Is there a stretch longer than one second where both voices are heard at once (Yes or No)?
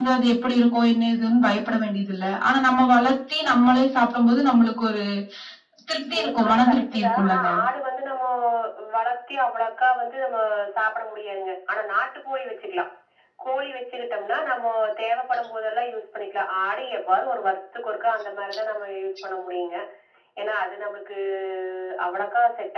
Yes